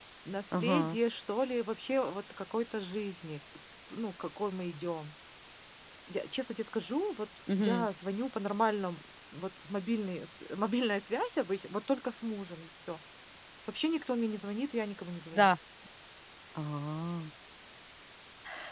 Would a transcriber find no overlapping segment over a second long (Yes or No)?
Yes